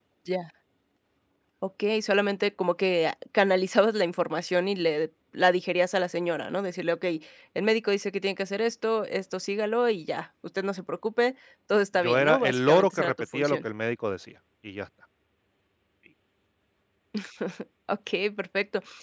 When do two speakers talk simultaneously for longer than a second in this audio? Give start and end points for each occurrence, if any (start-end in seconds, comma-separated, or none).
12.0-13.6